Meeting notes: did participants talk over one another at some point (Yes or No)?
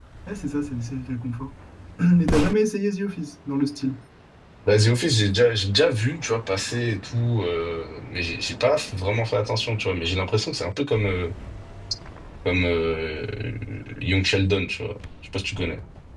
No